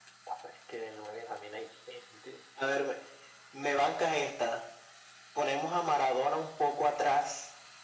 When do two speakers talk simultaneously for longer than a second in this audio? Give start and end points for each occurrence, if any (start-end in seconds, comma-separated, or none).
none